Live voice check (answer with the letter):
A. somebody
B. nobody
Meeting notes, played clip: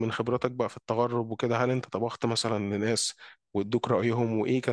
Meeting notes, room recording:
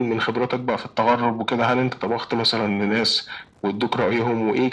B